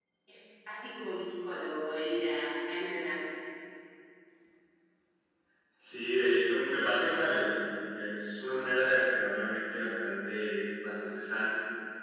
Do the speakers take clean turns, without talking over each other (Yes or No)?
Yes